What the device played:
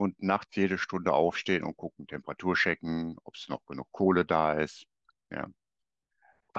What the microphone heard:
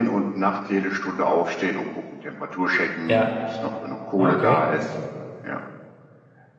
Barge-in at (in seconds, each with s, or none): 3.0 s